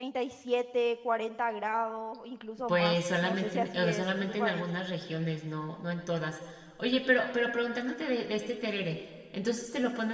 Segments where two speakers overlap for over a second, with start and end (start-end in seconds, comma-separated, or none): 2.7-4.6